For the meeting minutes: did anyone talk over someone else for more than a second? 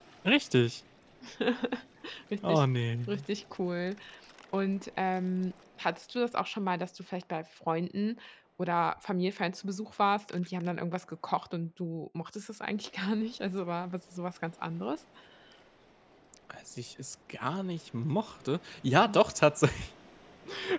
No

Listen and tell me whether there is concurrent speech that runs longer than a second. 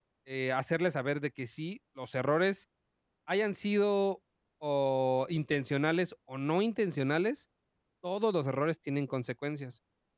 No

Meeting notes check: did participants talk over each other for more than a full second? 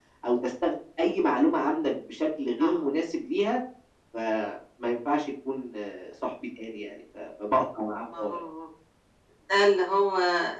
No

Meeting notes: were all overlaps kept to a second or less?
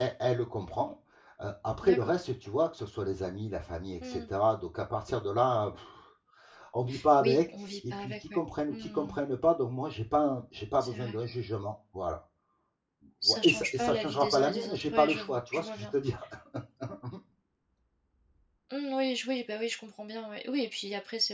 No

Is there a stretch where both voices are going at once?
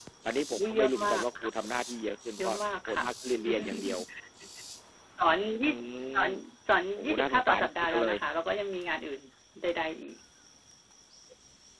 Yes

